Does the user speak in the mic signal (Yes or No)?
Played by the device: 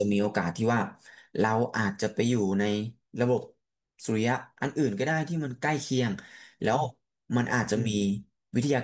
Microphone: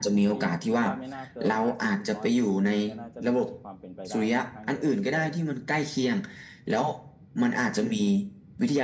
Yes